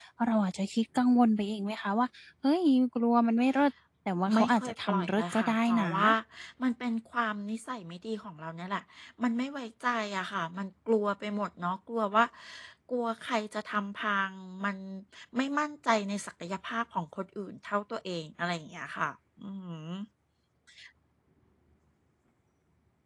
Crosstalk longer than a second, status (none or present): present